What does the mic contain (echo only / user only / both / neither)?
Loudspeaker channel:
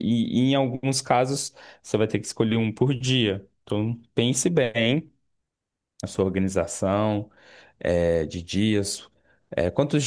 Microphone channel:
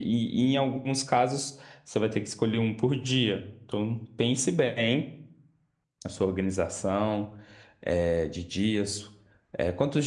echo only